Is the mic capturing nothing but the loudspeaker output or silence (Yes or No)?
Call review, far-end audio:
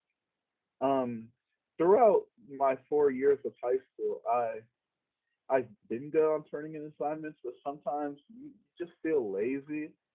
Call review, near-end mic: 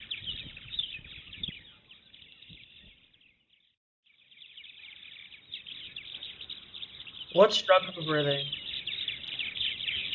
No